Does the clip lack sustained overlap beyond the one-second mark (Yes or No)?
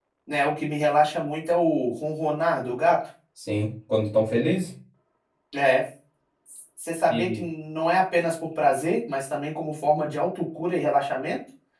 Yes